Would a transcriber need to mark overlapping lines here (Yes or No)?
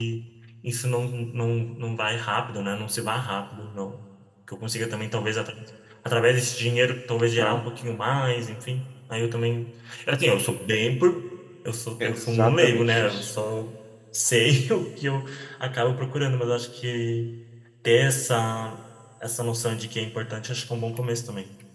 Yes